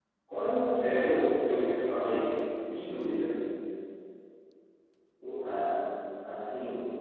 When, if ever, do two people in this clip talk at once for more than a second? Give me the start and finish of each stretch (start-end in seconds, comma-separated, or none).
none